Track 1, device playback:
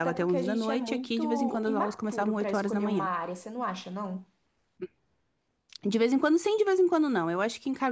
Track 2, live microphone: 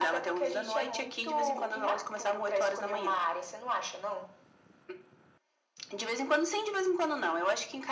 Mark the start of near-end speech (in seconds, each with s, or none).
none